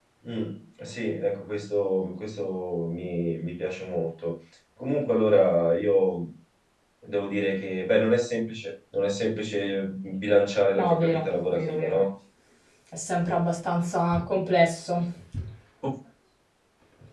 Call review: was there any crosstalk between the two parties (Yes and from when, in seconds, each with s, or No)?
Yes, from 10.7 s